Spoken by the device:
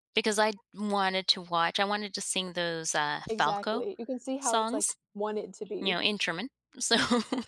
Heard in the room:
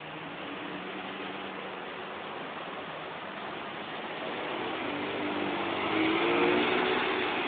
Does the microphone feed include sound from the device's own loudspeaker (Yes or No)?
No